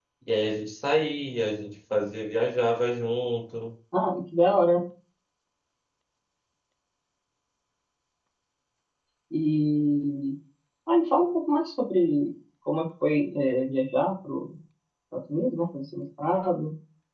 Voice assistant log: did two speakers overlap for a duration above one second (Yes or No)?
No